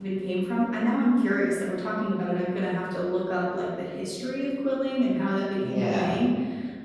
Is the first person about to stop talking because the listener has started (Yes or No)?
No